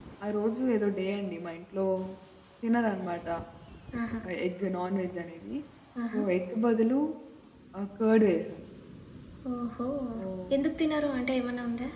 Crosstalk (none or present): none